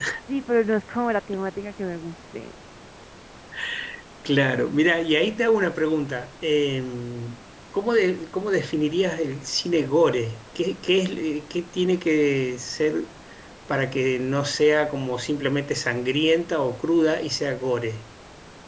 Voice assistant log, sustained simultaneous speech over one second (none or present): none